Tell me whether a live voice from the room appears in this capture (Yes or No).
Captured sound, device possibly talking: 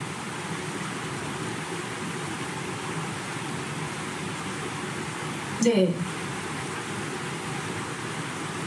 Yes